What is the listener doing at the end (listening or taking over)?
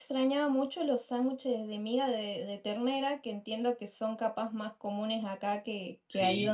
taking over